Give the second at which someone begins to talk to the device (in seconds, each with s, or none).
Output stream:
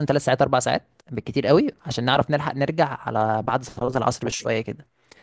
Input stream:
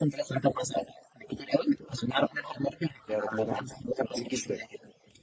3.1 s